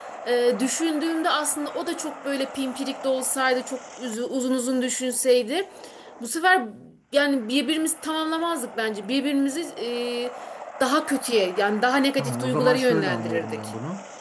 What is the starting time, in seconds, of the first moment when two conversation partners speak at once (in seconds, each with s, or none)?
12.2 s